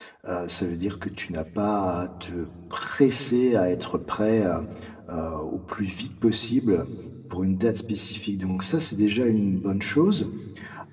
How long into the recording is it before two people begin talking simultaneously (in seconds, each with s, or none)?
none